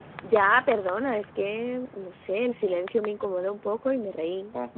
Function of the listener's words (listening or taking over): listening